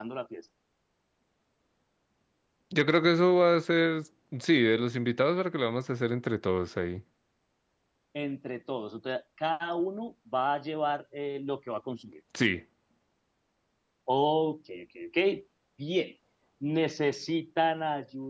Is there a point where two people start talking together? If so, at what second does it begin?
none

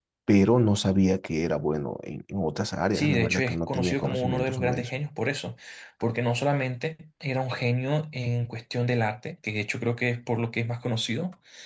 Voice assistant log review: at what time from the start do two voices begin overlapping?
2.9 s

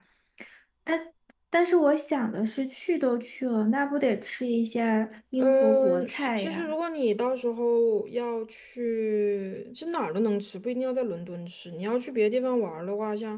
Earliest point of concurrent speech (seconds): 5.4 s

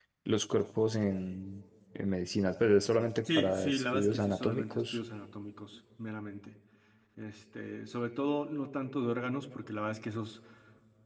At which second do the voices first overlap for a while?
3.2 s

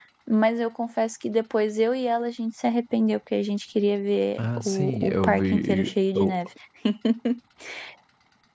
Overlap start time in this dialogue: 4.4 s

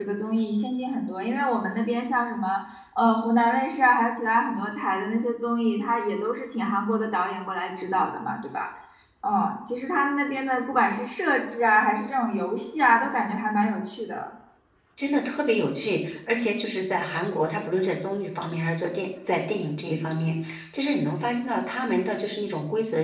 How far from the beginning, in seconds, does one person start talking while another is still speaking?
none

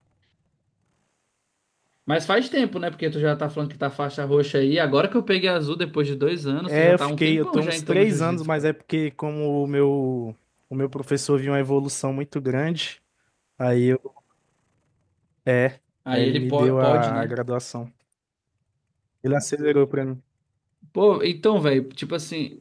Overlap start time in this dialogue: 6.7 s

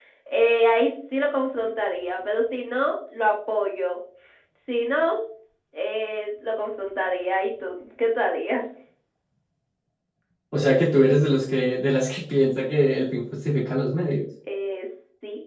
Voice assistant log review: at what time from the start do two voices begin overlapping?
none

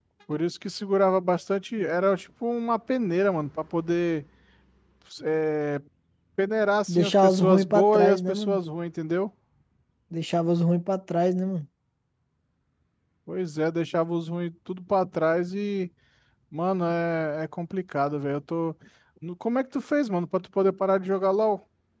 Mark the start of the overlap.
6.9 s

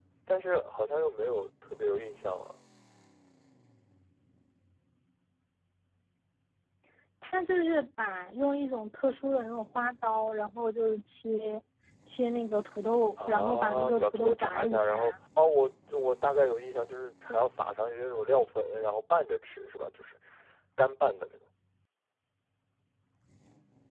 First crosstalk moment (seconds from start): 13.2 s

